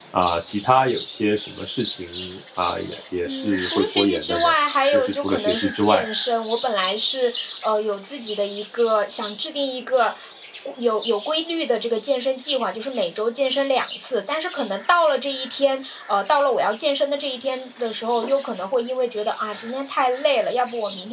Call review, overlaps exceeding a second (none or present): present